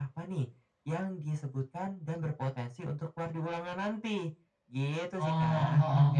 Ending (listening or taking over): taking over